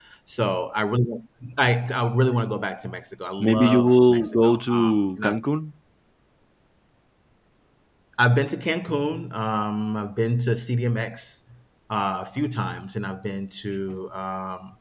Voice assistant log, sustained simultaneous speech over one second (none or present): present